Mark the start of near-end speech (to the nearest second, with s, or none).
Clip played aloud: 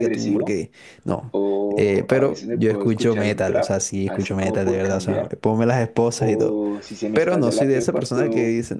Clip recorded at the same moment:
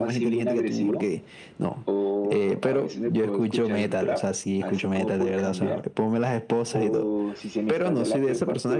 none